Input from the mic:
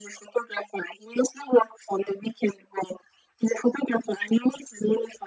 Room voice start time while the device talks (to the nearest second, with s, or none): none